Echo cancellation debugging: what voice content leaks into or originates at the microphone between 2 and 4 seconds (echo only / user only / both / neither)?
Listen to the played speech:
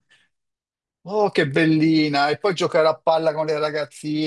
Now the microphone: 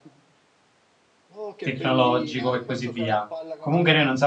both